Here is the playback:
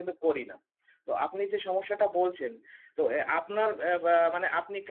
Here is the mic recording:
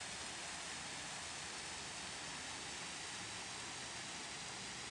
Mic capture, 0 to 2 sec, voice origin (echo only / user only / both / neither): neither